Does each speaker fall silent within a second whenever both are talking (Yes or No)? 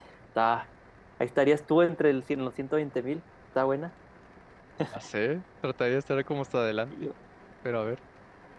Yes